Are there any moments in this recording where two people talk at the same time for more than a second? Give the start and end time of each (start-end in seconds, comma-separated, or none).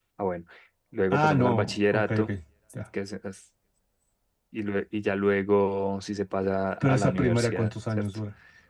1.1-2.3, 6.8-8.1